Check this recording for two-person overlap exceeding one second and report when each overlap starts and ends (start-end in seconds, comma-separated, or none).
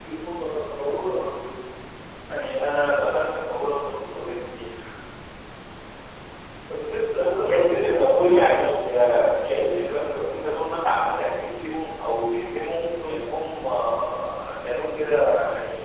7.3-8.8